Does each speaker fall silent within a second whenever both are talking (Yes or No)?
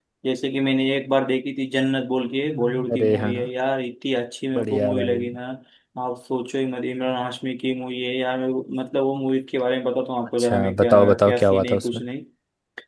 No